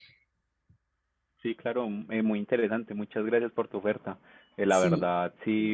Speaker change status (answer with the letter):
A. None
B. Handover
A